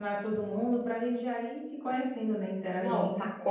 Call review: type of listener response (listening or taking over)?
taking over